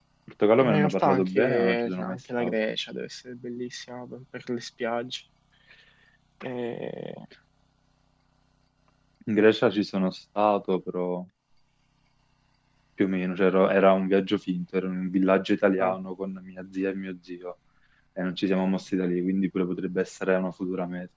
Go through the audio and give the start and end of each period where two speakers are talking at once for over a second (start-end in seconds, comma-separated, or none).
0.6-2.5